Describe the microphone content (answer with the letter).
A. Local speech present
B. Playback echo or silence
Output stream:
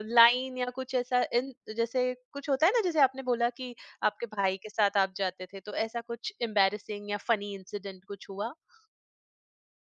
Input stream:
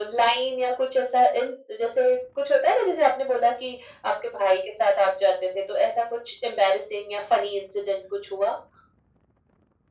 B